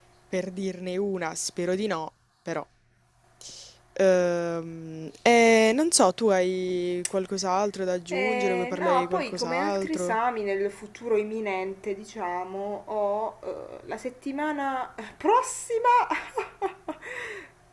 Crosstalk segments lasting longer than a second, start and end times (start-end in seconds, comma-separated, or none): 8.1-10.2